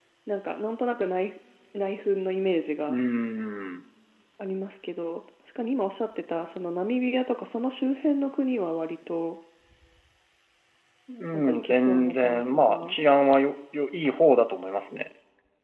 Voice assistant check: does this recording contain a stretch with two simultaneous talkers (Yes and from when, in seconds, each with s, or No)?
Yes, from 11.3 s